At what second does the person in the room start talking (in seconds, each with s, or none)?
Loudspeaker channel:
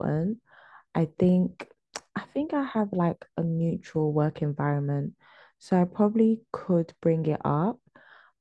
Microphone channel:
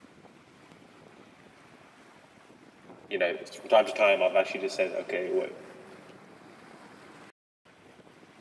3.1 s